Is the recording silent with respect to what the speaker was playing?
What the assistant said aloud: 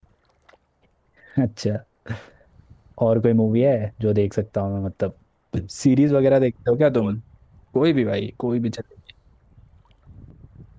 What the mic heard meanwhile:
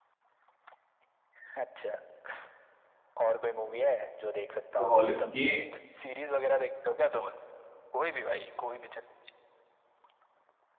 No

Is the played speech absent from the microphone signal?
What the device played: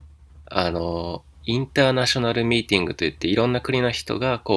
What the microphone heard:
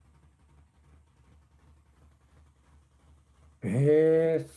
Yes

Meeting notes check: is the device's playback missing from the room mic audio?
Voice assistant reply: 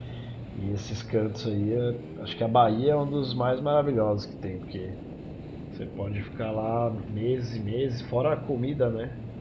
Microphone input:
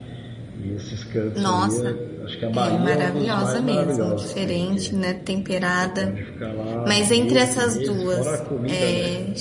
No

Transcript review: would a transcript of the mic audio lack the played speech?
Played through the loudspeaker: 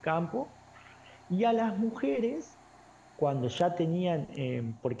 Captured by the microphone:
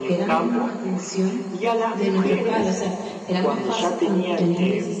No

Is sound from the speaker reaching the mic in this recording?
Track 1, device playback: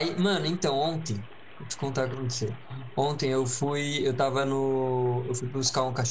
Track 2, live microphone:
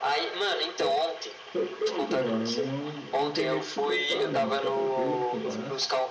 Yes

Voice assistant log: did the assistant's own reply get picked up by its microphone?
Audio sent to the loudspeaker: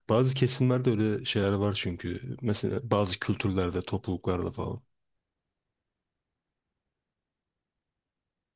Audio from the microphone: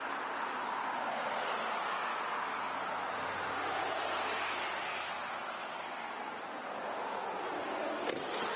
No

